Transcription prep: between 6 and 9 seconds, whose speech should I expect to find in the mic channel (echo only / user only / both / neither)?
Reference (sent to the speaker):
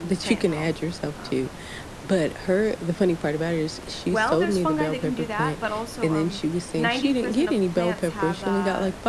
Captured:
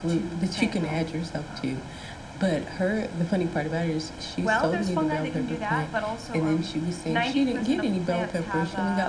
echo only